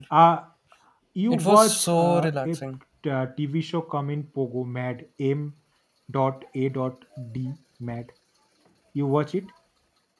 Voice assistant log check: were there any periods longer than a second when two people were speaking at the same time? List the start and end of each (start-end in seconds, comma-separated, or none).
1.3-2.6